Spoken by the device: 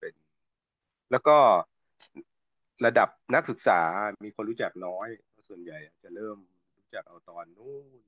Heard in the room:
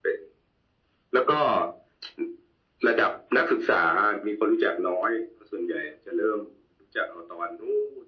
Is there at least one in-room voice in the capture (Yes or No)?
No